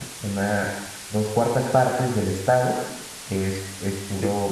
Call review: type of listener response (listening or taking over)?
listening